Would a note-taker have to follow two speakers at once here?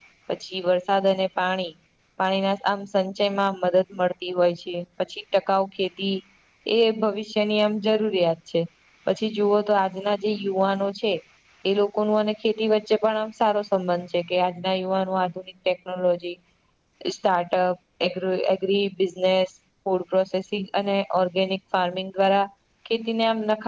No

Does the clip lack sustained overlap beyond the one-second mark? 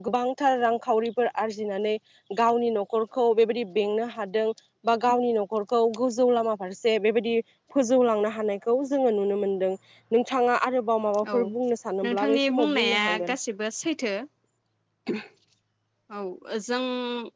No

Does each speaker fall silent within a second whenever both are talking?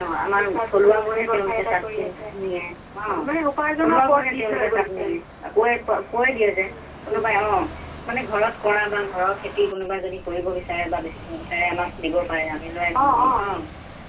No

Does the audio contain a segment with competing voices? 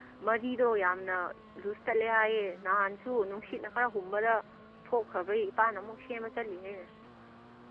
No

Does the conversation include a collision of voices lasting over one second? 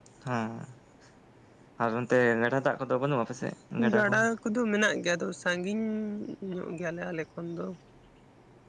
No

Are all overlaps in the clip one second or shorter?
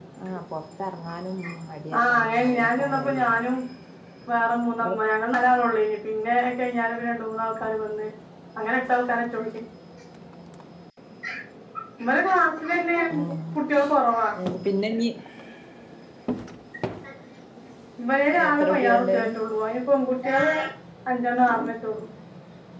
No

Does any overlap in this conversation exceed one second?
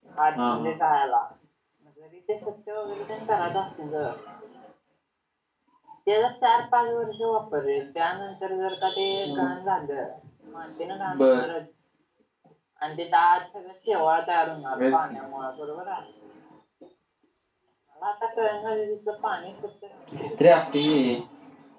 No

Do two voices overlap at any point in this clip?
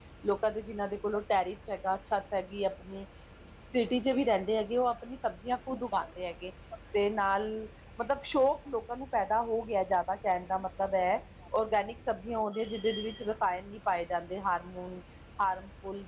No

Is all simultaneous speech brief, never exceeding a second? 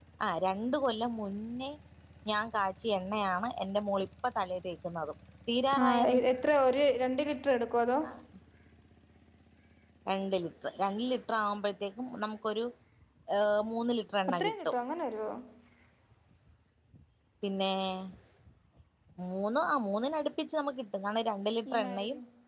Yes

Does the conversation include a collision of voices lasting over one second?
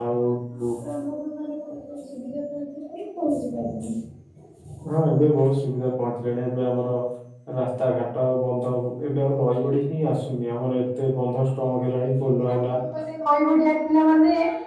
No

